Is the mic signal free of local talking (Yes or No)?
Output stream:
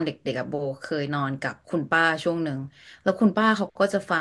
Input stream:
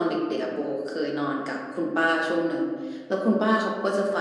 Yes